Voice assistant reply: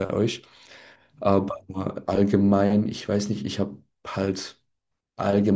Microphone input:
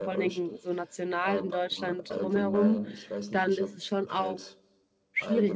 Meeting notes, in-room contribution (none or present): present